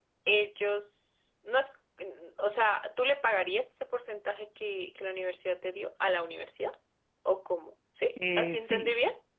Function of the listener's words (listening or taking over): taking over